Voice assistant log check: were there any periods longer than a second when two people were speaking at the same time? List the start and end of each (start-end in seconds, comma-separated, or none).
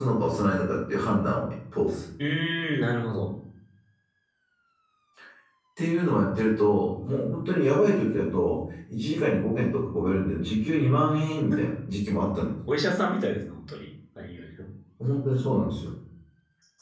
none